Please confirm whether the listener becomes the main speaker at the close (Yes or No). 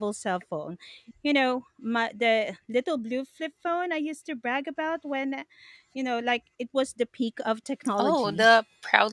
Yes